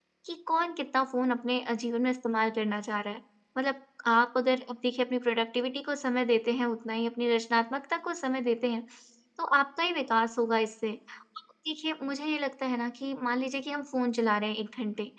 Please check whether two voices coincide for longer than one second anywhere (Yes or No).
No